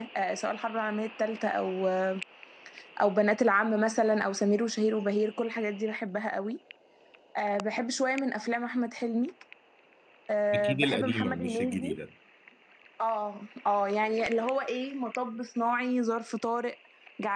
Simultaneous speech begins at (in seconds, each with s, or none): 10.5 s